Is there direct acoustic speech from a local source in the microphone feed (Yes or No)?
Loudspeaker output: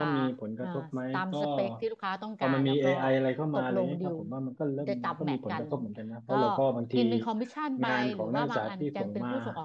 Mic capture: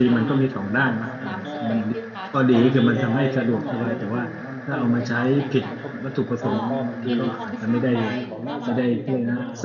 Yes